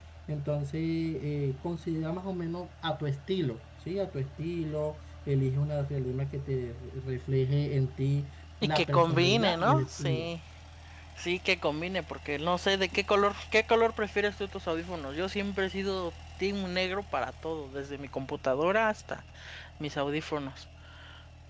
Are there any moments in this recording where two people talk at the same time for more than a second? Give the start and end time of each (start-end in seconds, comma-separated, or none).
8.6-10.3